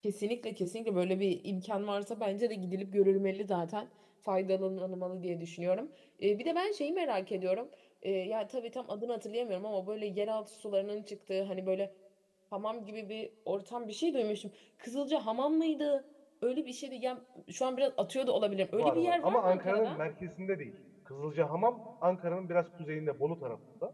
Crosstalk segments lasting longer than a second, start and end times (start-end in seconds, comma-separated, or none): 18.7-20.0